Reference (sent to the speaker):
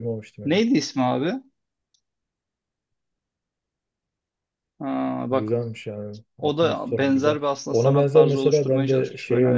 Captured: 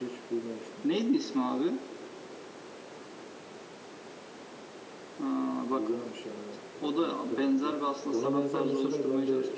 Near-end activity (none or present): none